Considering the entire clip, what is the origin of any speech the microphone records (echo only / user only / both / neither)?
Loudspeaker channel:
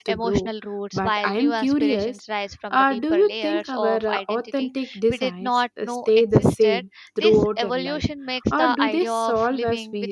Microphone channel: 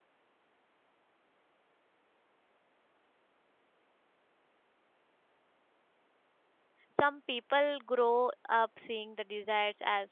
user only